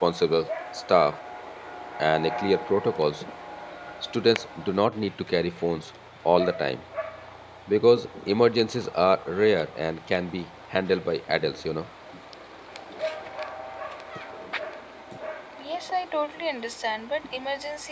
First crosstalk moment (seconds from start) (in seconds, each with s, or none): none